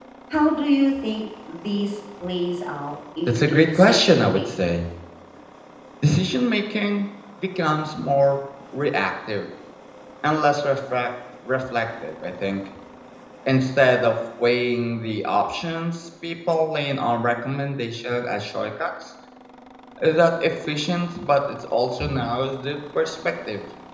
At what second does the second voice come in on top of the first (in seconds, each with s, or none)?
3.3 s